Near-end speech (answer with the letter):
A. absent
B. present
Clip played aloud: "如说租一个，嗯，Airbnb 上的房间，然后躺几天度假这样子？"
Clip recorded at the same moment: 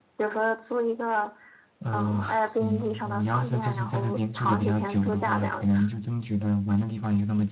B